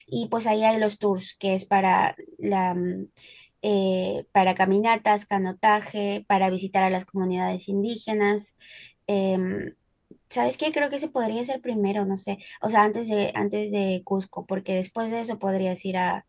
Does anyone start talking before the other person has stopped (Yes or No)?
No